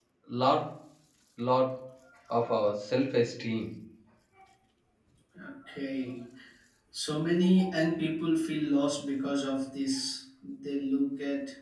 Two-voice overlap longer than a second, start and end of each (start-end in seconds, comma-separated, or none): none